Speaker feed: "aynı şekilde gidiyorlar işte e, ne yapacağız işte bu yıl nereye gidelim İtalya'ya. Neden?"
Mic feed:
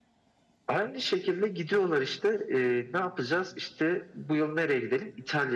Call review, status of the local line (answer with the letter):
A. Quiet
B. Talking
A